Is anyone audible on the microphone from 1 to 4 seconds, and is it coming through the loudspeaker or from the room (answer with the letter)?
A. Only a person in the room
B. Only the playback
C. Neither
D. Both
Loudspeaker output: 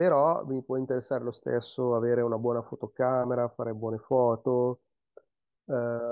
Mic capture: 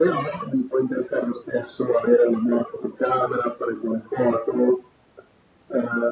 B